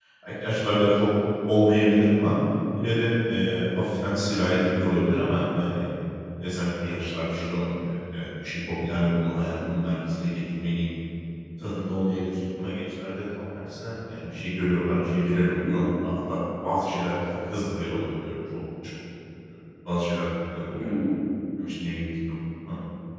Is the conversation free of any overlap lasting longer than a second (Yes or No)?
Yes